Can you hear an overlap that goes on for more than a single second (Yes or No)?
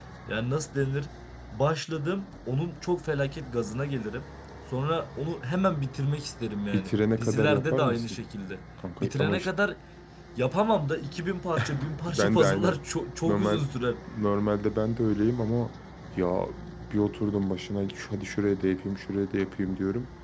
Yes